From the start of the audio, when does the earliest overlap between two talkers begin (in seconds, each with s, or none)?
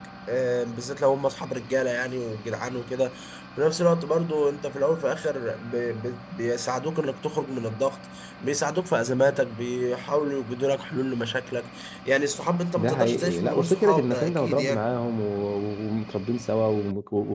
12.8 s